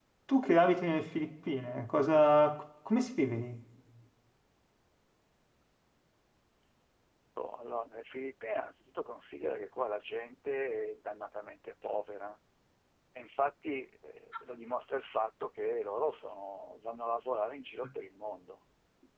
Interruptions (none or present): none